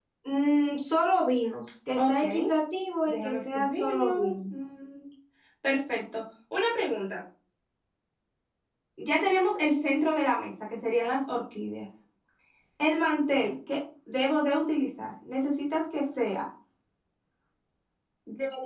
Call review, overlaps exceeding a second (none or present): present